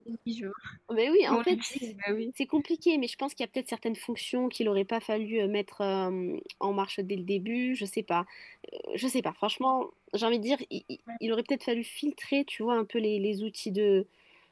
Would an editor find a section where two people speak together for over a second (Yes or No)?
No